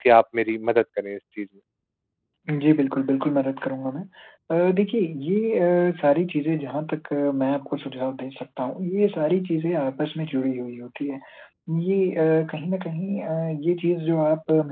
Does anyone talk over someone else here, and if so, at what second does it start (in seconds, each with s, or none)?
none